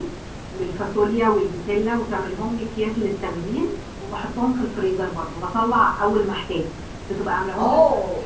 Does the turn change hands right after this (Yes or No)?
Yes